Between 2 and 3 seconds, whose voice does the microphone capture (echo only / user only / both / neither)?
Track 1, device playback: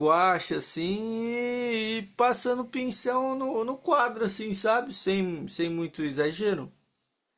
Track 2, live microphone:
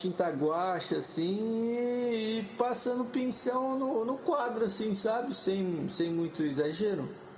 echo only